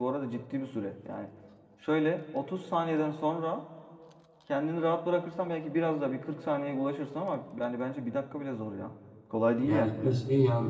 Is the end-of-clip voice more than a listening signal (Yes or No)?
Yes